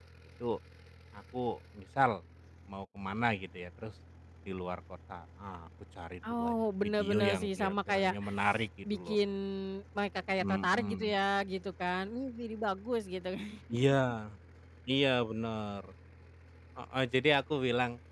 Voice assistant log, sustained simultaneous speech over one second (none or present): present